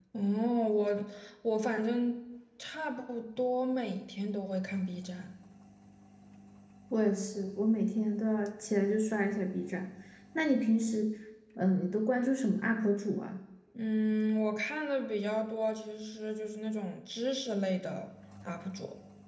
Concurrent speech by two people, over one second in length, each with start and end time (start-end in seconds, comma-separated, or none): none